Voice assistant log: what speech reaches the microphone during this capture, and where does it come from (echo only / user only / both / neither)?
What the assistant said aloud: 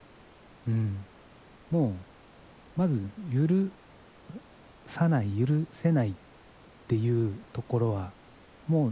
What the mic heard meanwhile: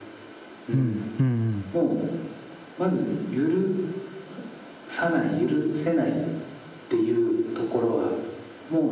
both